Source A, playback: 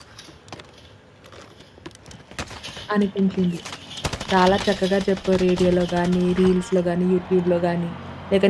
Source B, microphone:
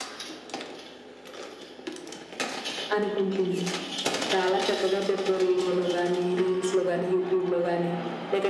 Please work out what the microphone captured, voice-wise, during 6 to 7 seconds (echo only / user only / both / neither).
echo only